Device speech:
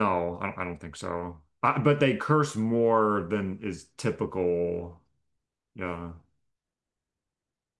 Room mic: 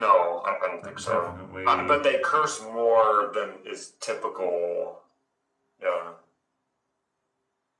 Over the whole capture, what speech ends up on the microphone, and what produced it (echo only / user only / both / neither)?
both